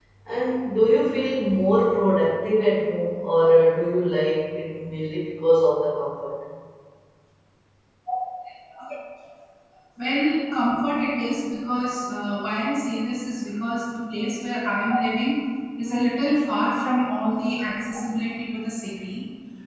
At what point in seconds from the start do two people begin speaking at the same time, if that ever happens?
none

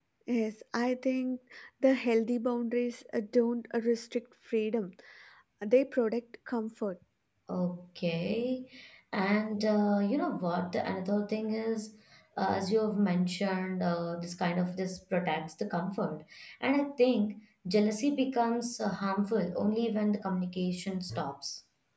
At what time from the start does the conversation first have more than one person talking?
none

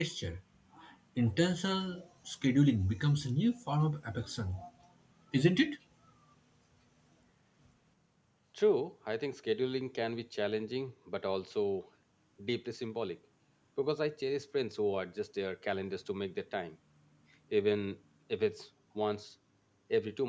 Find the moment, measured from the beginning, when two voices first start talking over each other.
none

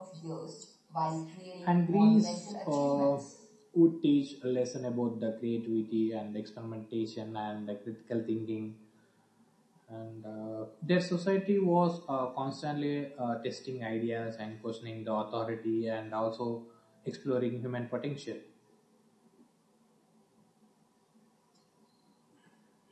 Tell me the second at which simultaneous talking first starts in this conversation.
1.7 s

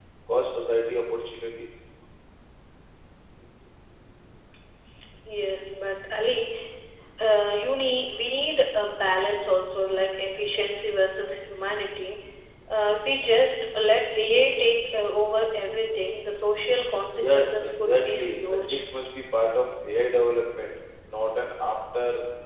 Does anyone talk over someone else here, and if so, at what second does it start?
17.2 s

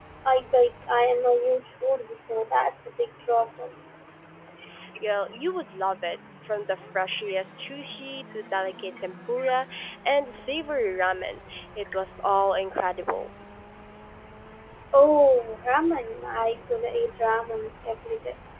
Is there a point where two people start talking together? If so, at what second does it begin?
none

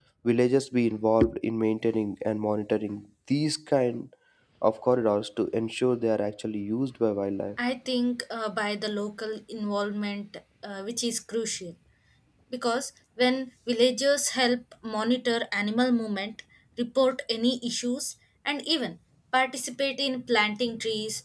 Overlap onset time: none

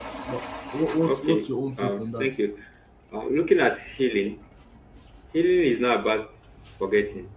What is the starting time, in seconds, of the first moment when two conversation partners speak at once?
1.1 s

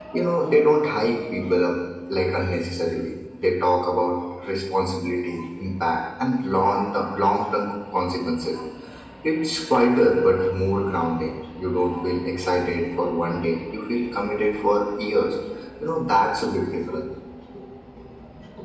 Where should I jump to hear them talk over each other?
none

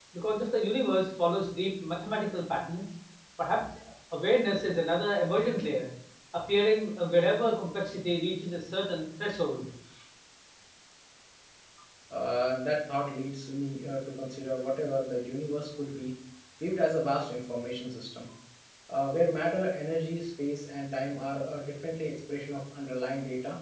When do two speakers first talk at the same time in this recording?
none

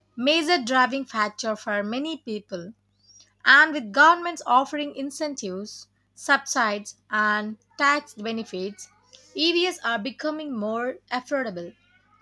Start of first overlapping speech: none

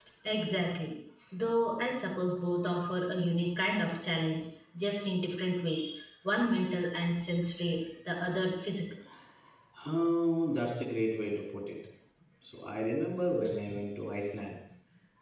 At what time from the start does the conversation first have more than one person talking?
none

